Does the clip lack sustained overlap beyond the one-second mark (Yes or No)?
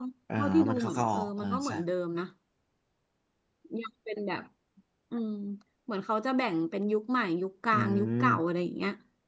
No